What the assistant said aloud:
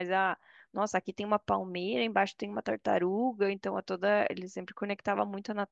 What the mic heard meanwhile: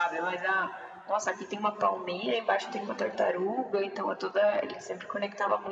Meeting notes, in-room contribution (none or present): none